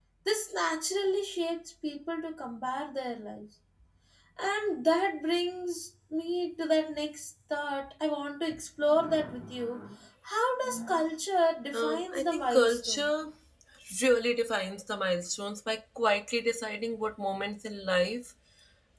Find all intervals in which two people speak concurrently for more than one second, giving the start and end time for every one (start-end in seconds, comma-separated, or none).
11.7-13.1